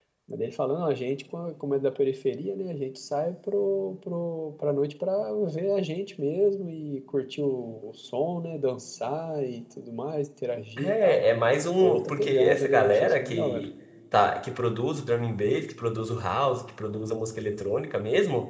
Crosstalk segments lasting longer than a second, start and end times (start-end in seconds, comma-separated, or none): 11.8-13.7